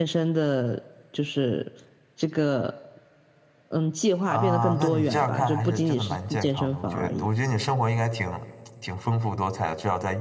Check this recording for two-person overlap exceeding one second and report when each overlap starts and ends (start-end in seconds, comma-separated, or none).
4.3-7.3